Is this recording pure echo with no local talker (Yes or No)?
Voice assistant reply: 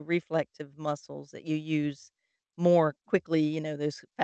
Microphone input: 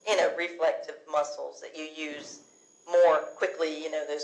Yes